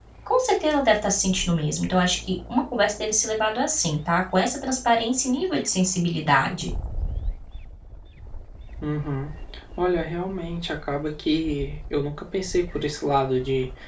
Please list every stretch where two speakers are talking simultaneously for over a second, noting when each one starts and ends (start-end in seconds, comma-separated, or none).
none